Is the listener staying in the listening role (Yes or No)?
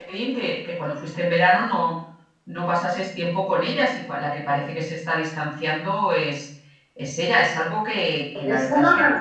No